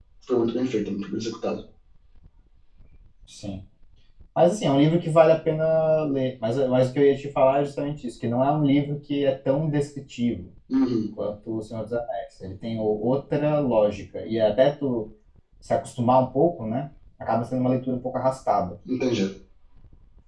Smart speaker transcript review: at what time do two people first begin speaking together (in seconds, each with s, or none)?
none